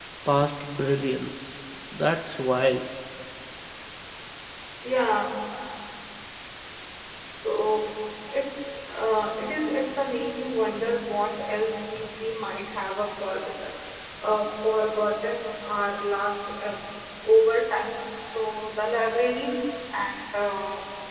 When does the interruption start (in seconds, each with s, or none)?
none